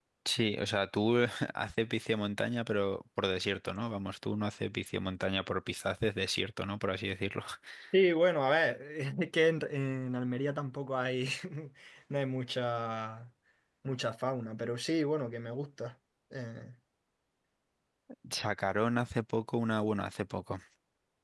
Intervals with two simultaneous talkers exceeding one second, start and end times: none

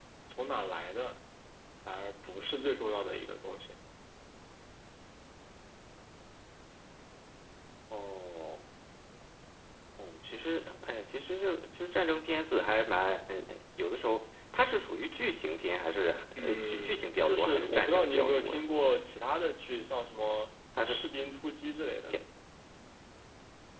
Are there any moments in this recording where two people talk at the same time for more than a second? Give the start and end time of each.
16.4-18.6

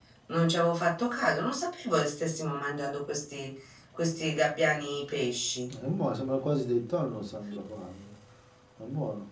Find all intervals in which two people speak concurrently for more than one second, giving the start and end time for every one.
none

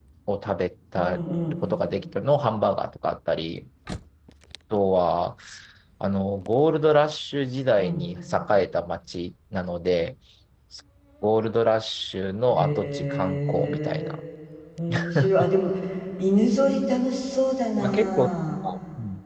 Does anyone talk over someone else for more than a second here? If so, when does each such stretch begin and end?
12.5-14.2

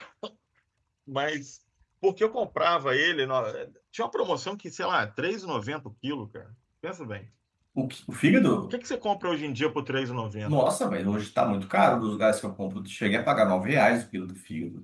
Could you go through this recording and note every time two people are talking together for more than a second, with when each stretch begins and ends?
none

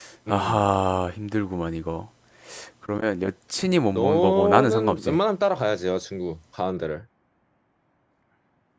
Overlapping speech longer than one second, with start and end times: 3.9-5.2

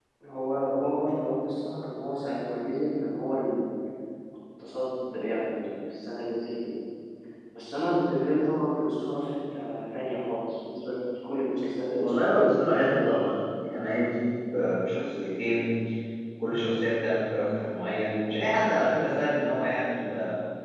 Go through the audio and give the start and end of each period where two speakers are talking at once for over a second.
12.0-13.2

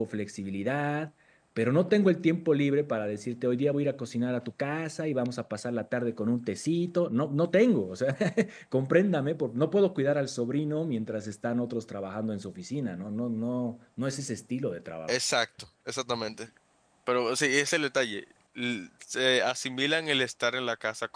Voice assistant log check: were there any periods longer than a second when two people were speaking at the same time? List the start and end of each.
none

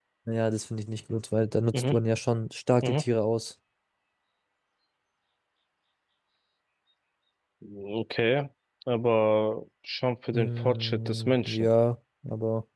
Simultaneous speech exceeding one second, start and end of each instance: 10.3-11.7

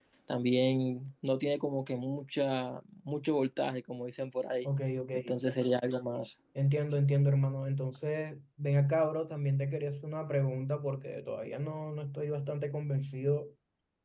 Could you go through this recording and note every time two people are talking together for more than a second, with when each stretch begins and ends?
none

